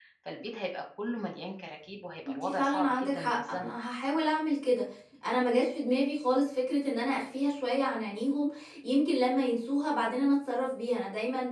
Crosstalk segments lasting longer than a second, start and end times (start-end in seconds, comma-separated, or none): 2.2-3.8